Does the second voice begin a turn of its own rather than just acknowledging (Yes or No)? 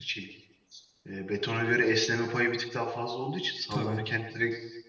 No